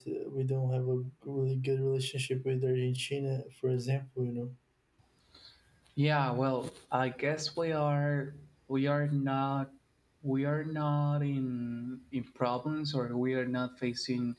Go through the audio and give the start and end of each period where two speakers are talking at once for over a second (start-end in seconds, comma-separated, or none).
none